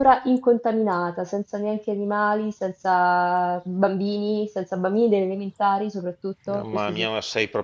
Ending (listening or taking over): taking over